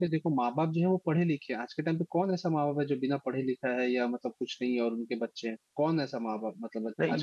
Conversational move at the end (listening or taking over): taking over